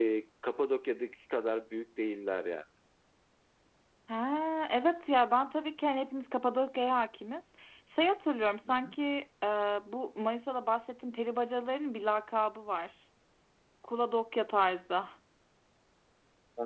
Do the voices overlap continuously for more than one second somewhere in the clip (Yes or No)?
No